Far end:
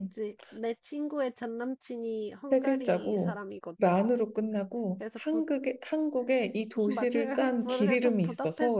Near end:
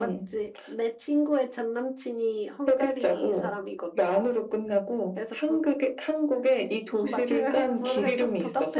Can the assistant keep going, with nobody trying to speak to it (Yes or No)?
Yes